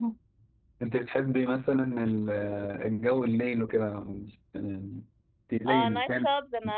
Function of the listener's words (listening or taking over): taking over